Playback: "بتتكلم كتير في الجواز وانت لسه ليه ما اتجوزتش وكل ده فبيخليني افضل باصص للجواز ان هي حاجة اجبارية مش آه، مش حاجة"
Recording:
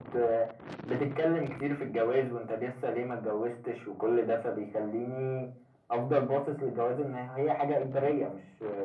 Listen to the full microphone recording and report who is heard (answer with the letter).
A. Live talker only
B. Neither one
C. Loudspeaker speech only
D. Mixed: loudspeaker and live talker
C